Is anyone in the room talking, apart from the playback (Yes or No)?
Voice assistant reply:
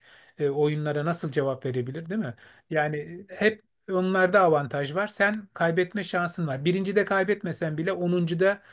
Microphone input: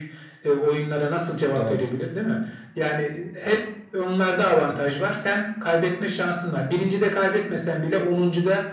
Yes